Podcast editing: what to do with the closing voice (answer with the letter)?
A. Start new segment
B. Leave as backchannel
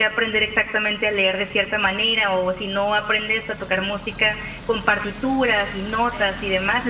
B